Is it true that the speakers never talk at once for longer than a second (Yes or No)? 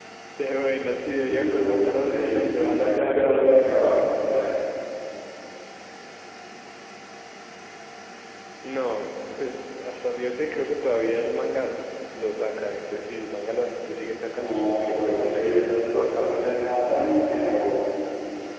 No